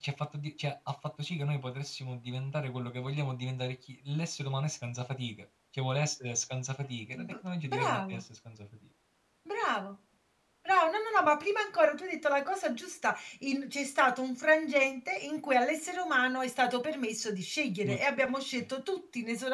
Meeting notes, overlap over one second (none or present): none